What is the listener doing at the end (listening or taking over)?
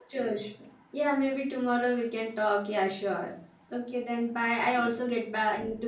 listening